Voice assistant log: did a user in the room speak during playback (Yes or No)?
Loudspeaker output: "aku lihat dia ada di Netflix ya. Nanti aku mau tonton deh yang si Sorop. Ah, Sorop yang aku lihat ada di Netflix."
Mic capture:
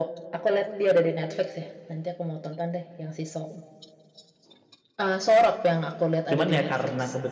Yes